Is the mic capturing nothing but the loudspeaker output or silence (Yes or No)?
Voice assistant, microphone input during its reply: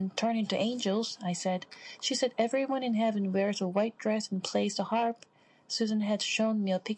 Yes